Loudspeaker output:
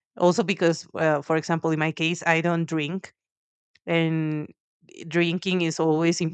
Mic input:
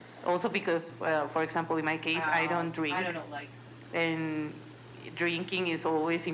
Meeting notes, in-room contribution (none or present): present